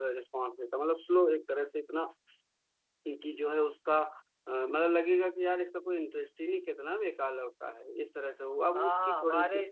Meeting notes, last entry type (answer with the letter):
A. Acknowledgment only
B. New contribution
B